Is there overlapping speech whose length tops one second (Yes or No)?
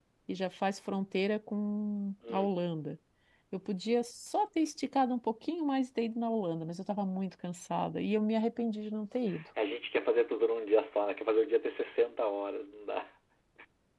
No